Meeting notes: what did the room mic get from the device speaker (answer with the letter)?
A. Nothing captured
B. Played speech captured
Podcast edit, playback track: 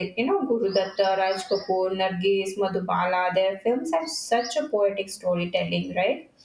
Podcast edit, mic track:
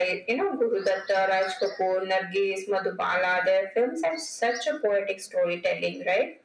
B